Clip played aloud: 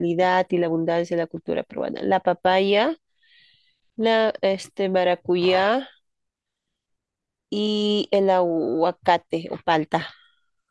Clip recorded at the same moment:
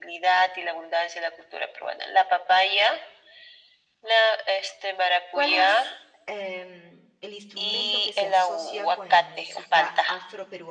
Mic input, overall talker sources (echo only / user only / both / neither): both